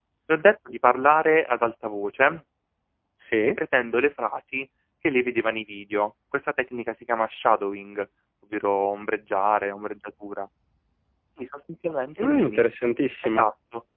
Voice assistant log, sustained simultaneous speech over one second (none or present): none